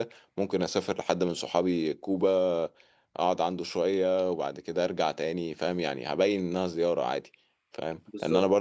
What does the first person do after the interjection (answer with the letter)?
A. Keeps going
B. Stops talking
A